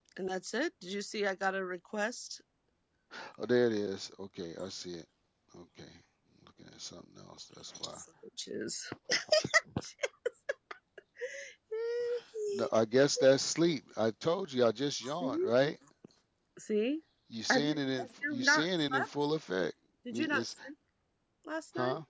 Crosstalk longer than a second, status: present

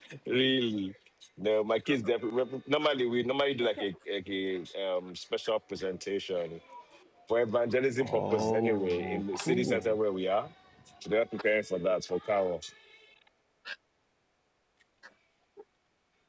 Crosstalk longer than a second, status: present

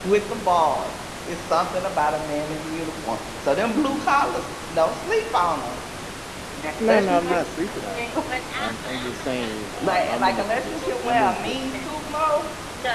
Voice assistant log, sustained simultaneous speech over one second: present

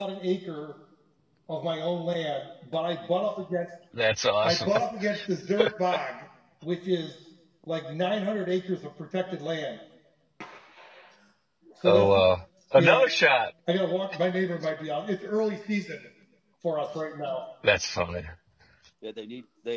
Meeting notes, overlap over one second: none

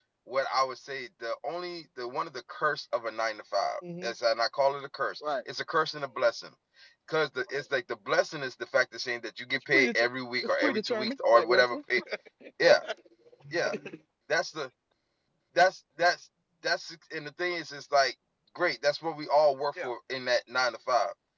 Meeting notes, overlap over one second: present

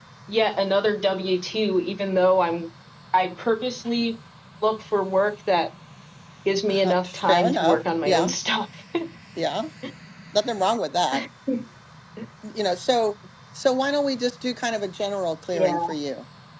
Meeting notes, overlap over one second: present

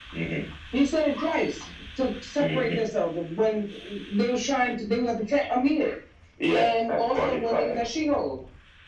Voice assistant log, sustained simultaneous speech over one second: present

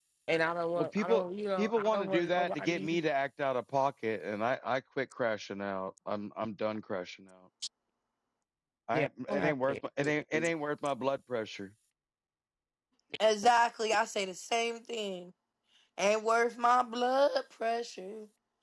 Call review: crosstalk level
present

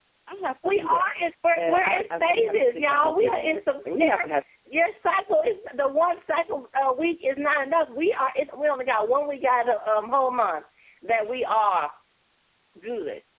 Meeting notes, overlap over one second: present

